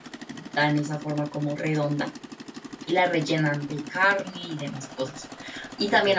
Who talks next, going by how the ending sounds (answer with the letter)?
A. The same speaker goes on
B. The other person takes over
A